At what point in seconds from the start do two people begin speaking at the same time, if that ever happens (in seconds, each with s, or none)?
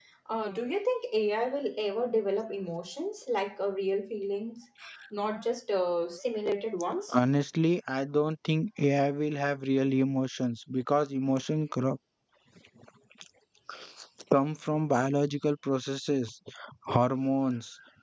none